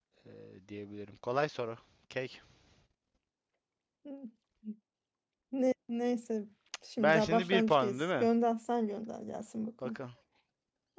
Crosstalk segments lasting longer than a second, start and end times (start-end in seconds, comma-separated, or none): 7.0-8.3